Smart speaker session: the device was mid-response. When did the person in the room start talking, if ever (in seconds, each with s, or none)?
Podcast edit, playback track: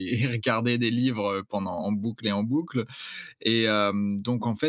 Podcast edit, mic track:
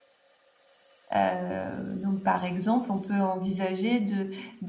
1.2 s